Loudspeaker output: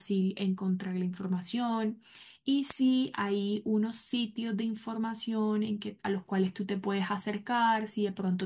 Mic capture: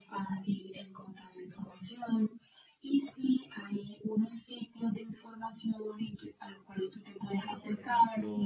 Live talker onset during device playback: 7.3 s

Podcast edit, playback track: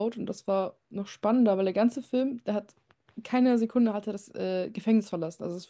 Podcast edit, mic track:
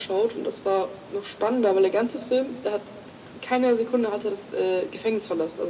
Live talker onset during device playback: none

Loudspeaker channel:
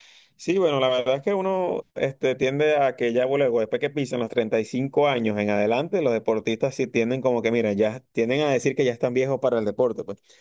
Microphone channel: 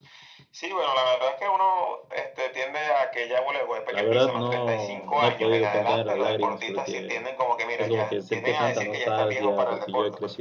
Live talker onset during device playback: 3.9 s

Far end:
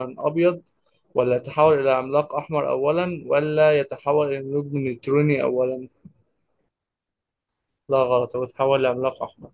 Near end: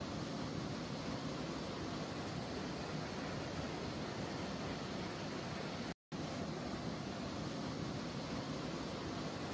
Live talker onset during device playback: none

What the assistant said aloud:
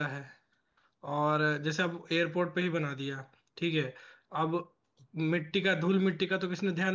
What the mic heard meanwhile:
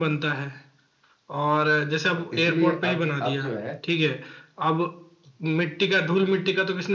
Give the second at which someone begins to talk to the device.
2.1 s

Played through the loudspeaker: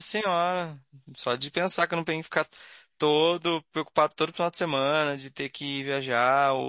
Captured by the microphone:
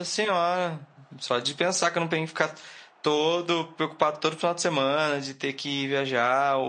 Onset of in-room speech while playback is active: none

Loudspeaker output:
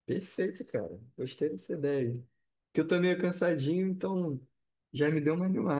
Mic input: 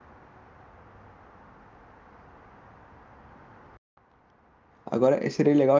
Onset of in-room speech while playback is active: 4.9 s

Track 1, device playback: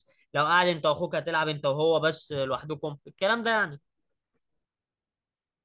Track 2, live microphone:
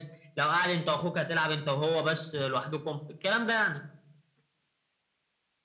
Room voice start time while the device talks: none

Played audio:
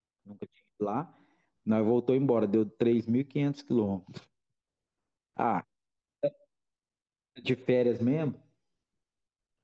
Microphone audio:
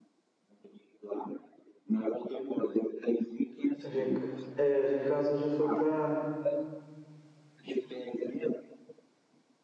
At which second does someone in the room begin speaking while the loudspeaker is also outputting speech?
3.8 s

